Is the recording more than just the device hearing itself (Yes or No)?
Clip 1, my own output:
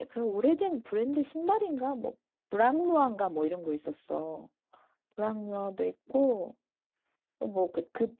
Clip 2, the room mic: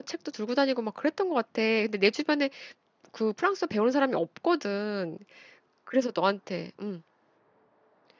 Yes